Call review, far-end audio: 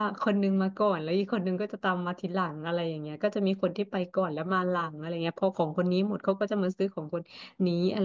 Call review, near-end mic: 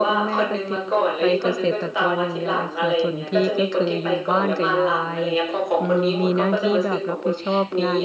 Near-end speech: present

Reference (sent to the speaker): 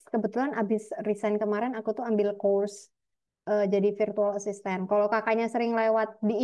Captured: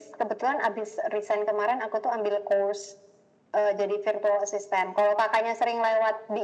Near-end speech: none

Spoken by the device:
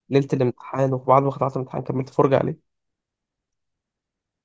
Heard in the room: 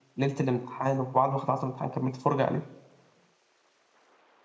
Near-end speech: none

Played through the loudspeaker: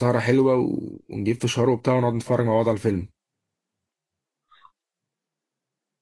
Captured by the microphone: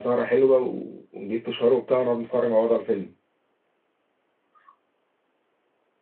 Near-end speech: none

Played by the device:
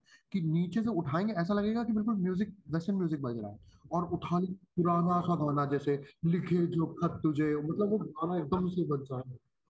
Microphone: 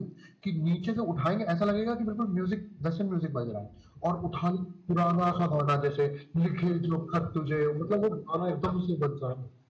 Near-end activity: none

